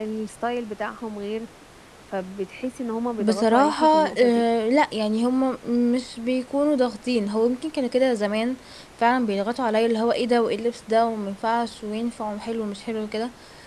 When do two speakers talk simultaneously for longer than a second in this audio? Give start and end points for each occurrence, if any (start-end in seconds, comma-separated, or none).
3.2-4.4